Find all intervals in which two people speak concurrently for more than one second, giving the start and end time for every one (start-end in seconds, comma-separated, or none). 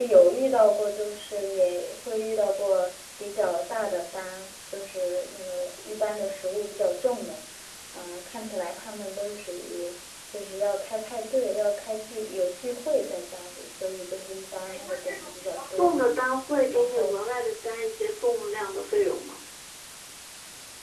14.7-16.0